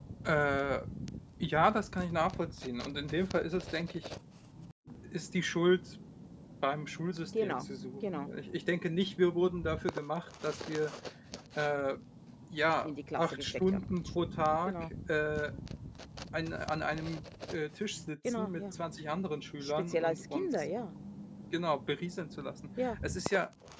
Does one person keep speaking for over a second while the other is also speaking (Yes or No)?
Yes